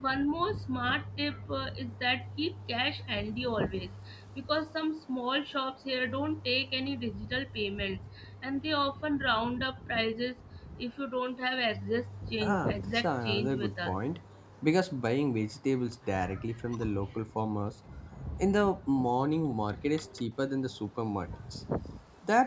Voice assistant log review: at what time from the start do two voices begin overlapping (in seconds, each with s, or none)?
12.4 s